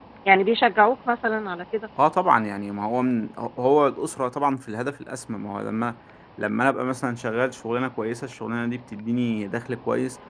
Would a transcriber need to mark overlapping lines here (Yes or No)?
No